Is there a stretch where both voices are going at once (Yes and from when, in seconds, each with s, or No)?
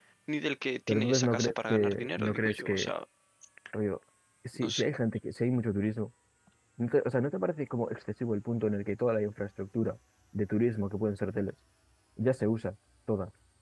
Yes, from 0.9 s